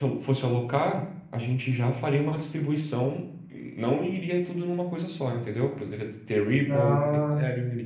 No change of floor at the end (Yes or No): Yes